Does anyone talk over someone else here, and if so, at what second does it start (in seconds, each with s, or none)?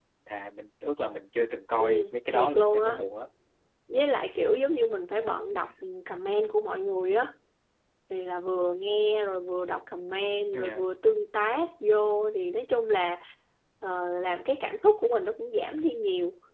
1.8 s